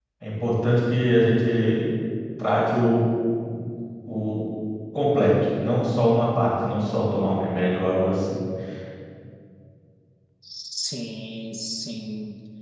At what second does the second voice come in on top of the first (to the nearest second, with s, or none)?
none